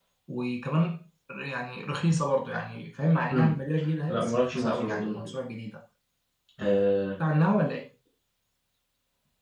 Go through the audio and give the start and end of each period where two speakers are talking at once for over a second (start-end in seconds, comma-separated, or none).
4.1-5.3